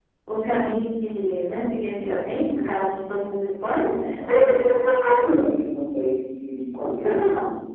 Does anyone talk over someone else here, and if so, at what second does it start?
3.9 s

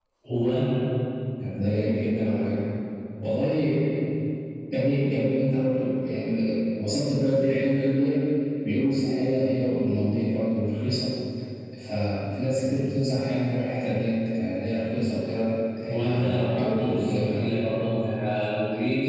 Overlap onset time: 15.9 s

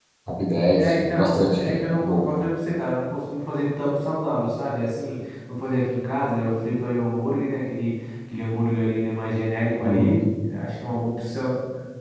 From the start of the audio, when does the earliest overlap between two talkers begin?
0.8 s

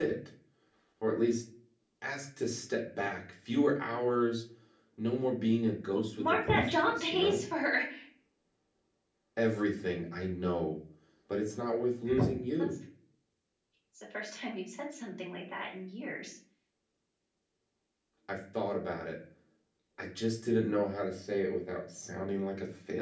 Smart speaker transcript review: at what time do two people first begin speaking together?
6.2 s

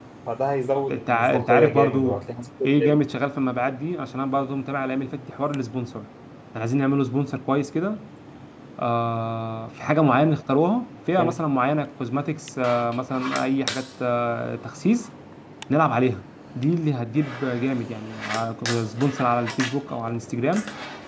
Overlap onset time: 0.9 s

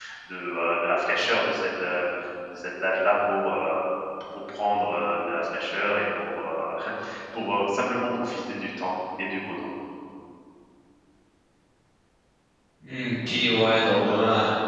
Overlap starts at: none

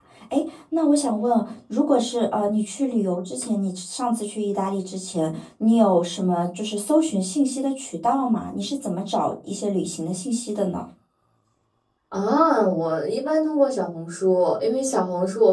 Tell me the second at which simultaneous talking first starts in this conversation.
none

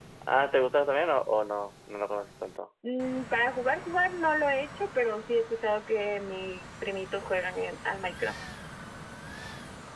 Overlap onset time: none

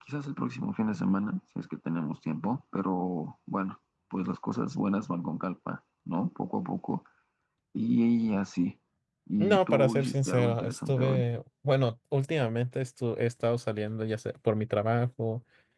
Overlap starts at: 9.4 s

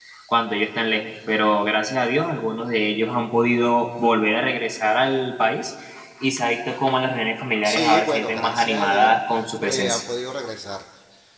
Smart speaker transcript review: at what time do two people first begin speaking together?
7.6 s

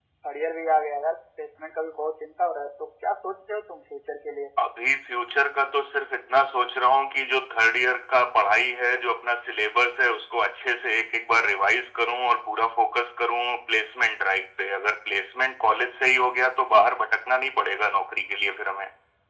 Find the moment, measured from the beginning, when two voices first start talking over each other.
none

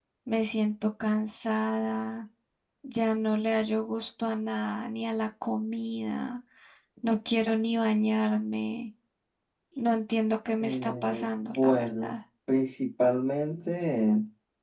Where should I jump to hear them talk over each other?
10.6 s

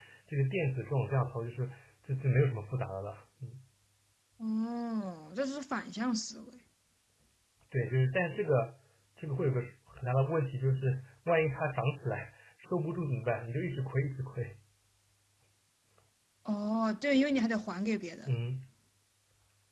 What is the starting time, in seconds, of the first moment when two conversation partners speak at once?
none

